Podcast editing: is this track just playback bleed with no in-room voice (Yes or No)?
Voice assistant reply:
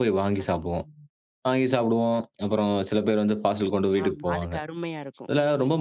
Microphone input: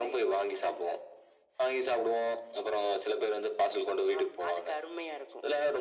Yes